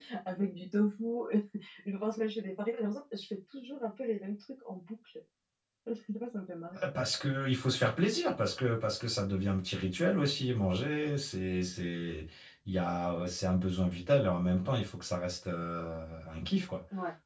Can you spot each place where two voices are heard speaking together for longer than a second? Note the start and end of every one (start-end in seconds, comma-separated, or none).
none